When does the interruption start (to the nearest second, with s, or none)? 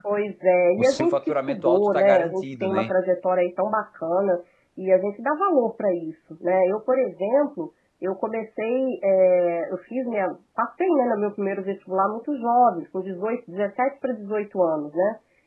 1 s